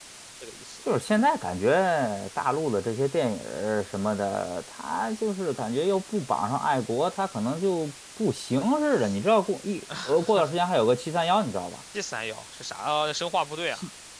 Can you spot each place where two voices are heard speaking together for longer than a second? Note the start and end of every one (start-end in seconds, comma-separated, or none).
none